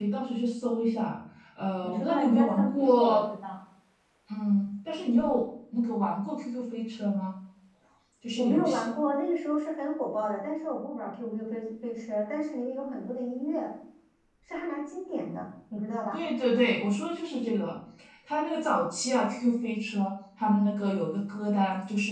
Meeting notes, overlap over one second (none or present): present